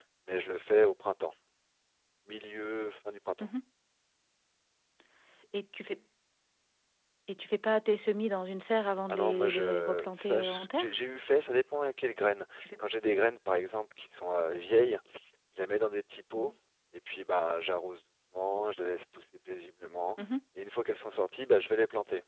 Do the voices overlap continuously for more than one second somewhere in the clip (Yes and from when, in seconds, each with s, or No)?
Yes, from 9.1 s